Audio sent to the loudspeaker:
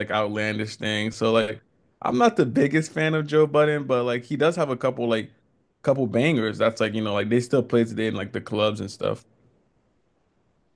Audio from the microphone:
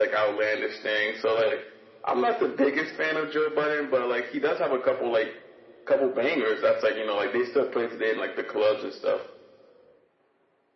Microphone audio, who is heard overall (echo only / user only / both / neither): echo only